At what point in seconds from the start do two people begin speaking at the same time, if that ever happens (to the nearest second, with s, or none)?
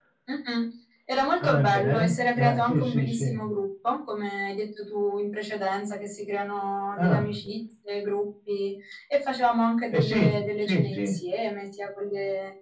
1 s